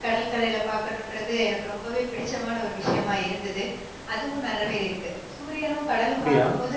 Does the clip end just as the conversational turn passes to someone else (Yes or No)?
No